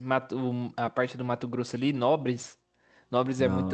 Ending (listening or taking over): listening